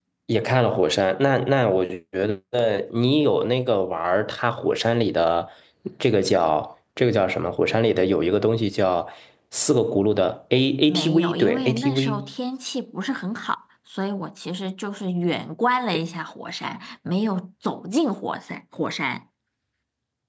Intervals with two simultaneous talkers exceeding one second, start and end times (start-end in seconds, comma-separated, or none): 10.9-12.3